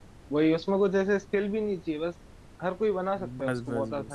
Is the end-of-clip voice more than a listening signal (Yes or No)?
Yes